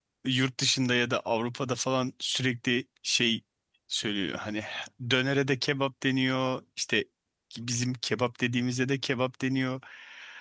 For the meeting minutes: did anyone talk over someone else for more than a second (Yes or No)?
No